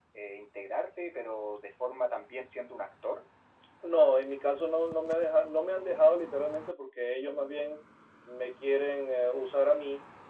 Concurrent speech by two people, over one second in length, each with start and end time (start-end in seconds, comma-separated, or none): none